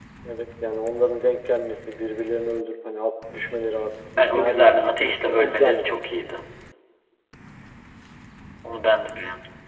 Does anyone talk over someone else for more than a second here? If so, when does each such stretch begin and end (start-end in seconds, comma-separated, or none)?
4.2-5.9